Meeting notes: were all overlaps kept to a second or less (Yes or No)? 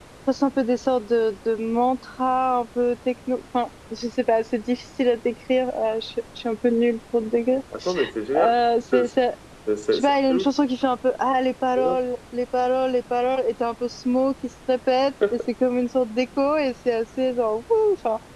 Yes